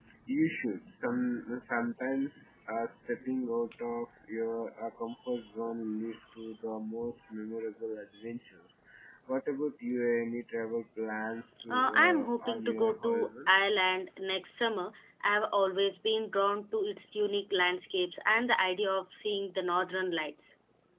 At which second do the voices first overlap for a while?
11.7 s

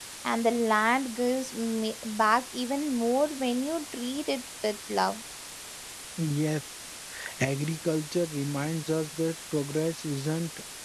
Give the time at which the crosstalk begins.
none

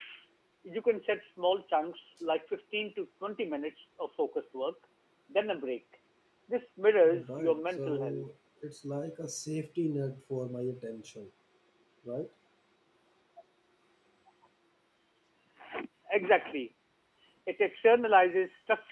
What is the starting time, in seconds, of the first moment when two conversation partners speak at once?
7.0 s

